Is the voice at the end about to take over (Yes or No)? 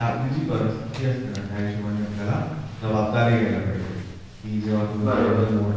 No